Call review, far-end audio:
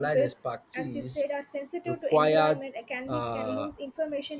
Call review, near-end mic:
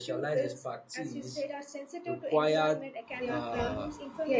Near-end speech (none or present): present